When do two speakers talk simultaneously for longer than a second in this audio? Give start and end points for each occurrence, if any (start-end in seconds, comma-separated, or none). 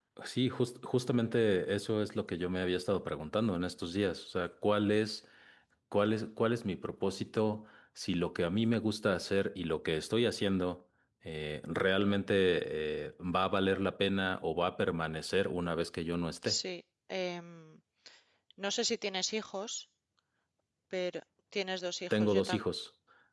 none